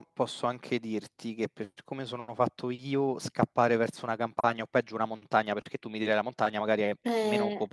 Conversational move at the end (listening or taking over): listening